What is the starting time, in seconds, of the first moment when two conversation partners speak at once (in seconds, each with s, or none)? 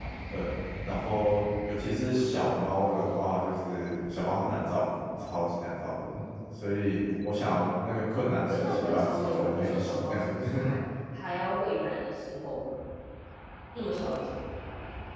8.5 s